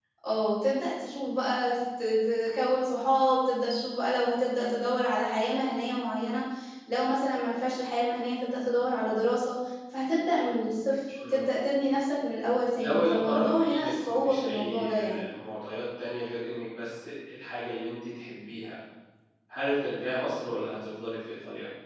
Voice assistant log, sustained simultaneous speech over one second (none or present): present